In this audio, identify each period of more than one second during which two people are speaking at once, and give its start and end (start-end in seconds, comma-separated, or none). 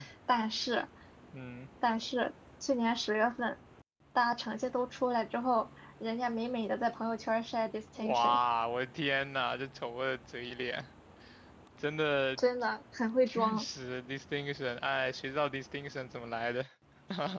none